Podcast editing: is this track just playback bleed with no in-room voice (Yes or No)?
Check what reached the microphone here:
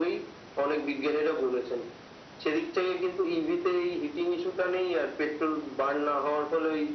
Yes